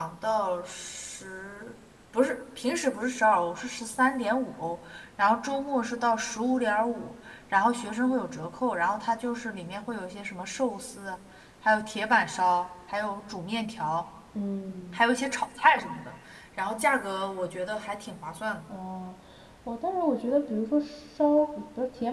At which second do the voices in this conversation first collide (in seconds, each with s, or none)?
none